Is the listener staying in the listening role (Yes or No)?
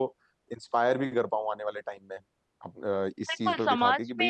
No